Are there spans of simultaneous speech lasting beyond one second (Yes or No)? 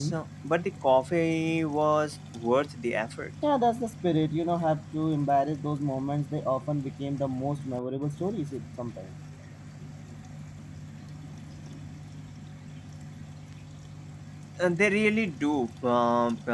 No